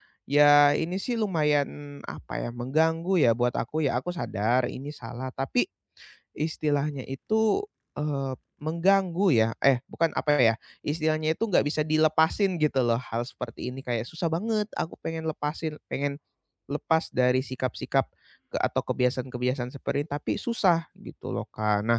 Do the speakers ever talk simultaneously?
No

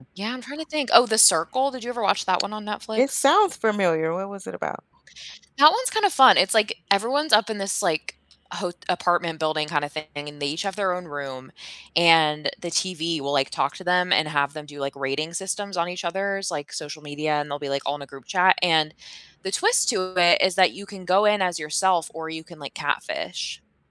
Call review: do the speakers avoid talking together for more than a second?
Yes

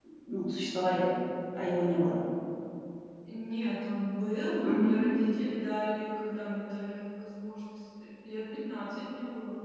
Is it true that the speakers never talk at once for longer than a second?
Yes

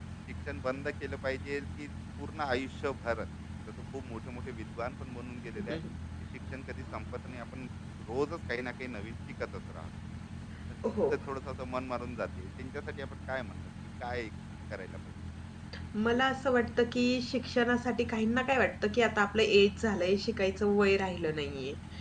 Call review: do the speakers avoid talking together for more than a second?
Yes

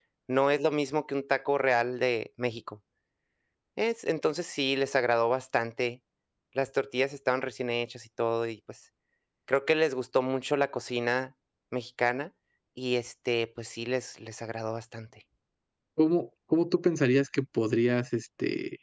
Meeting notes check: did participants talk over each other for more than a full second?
No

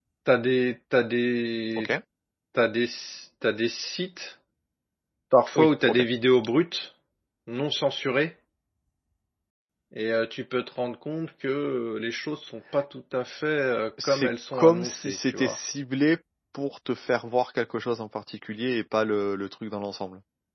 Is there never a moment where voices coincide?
No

